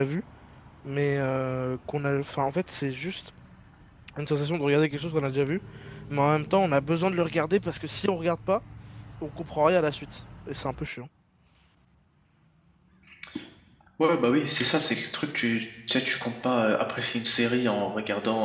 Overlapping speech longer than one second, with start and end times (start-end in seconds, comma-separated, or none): none